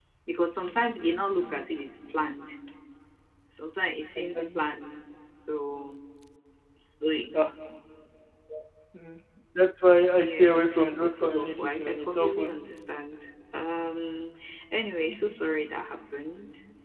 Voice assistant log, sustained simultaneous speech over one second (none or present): present